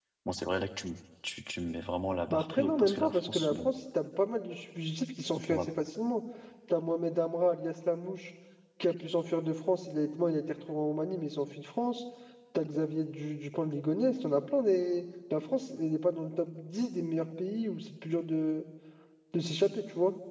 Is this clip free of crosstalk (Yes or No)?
No